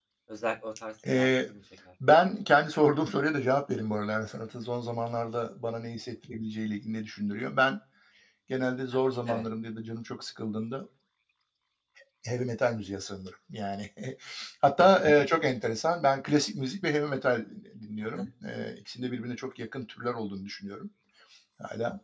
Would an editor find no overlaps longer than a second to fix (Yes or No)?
Yes